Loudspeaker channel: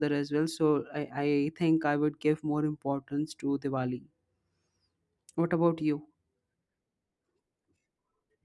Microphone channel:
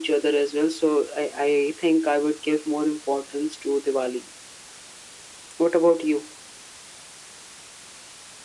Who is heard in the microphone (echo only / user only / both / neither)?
echo only